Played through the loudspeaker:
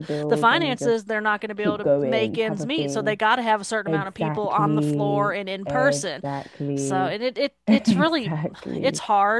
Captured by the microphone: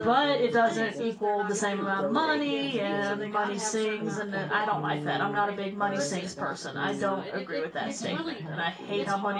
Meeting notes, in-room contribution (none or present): present